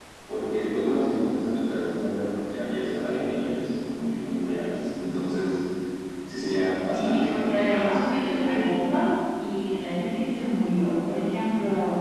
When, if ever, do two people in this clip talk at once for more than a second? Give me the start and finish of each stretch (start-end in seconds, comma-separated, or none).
6.8-8.7